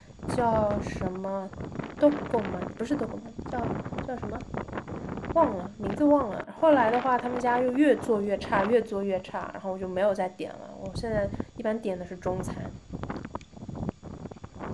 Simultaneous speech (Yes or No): No